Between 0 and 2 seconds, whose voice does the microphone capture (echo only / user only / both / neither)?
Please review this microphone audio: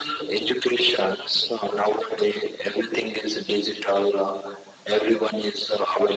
echo only